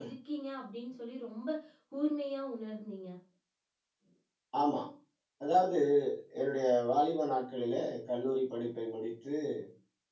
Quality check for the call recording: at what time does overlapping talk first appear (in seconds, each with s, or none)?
none